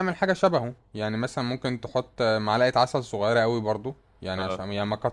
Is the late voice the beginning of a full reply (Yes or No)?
No